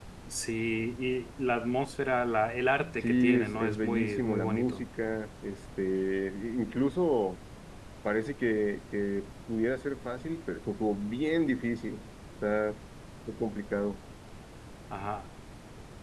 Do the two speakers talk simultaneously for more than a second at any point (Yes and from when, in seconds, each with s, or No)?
Yes, from 3.0 s